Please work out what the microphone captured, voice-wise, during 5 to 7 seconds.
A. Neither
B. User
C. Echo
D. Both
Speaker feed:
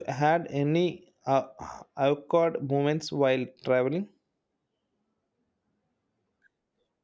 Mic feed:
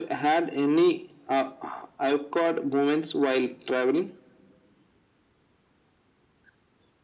A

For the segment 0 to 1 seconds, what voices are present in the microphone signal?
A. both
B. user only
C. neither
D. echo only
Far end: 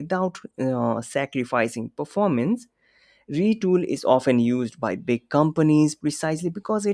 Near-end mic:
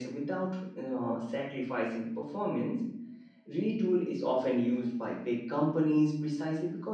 D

